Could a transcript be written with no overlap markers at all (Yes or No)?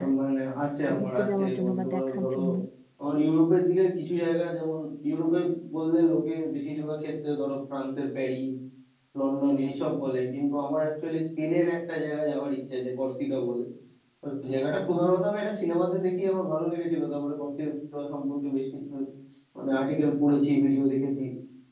No